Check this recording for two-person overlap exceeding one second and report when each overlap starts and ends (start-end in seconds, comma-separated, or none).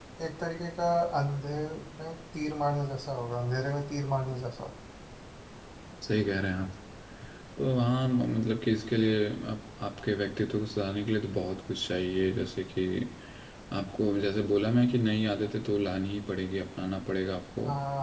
none